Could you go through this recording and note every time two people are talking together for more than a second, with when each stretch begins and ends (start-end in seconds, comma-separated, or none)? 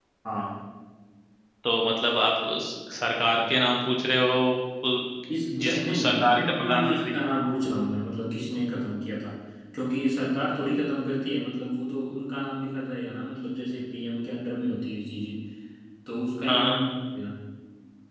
5.6-7.1